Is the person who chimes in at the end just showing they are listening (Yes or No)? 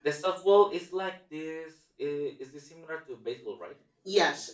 No